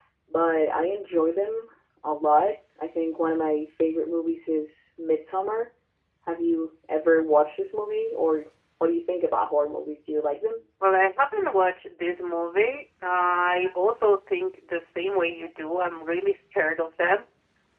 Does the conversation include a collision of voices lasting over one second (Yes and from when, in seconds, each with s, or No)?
No